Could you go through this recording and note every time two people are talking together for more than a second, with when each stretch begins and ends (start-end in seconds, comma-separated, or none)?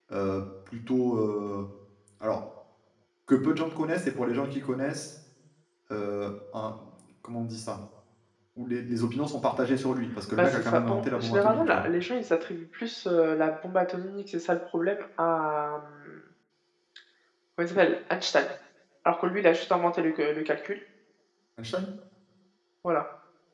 10.4-11.9